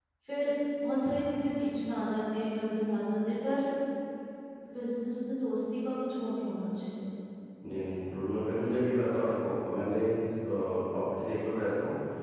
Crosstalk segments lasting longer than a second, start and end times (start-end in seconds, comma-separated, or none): none